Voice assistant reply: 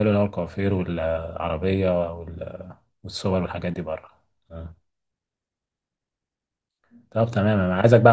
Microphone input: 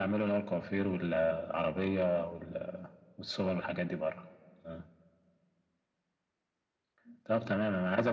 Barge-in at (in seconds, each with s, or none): none